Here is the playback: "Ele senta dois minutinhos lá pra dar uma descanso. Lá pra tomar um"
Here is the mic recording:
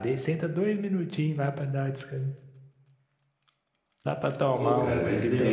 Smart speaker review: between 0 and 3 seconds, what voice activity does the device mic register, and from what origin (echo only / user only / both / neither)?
echo only